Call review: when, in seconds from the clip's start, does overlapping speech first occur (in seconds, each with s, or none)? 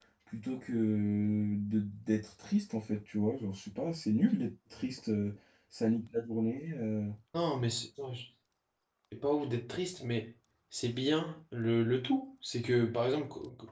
none